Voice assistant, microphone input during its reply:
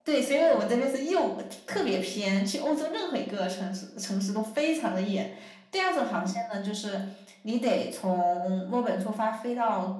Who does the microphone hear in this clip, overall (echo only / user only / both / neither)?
echo only